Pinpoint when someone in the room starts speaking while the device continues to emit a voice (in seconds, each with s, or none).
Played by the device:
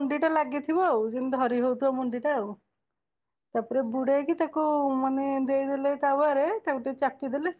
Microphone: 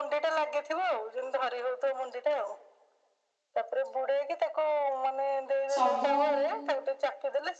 5.7 s